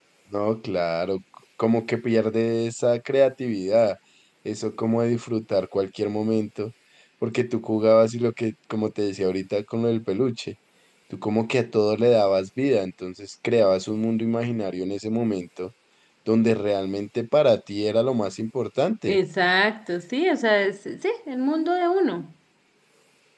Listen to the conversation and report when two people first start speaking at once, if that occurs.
none

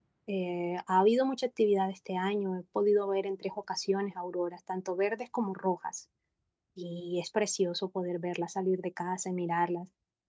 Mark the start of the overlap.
none

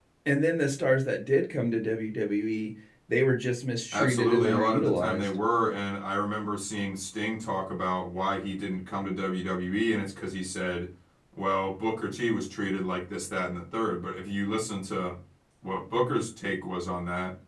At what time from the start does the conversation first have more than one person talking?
3.9 s

